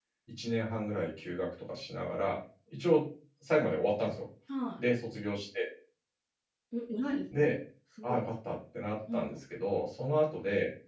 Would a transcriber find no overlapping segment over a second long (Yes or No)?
Yes